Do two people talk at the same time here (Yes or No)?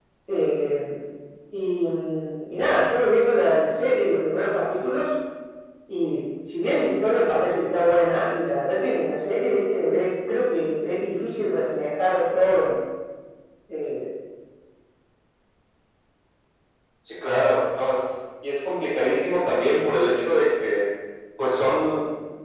No